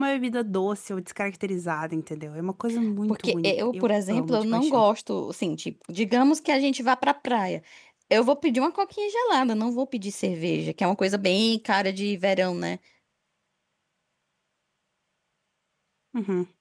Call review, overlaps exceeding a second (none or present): present